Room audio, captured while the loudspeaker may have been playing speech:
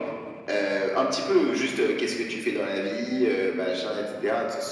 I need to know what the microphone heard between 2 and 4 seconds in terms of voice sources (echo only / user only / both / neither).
echo only